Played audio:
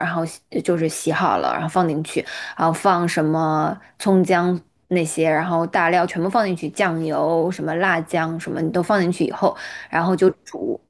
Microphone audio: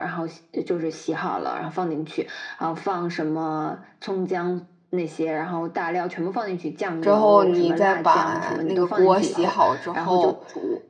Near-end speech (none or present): present